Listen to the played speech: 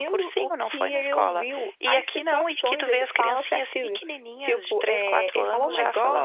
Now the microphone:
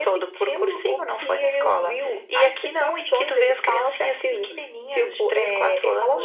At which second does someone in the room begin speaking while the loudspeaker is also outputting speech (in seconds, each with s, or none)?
none